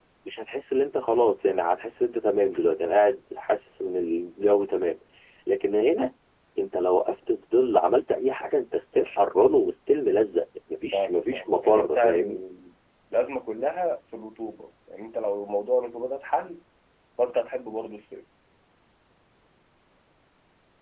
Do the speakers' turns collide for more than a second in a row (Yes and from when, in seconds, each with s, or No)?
Yes, from 10.9 s